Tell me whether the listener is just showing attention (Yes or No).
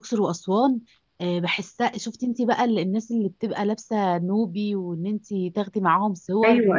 No